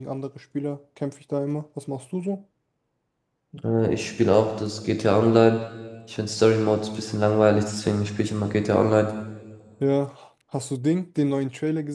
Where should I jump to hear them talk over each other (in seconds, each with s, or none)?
none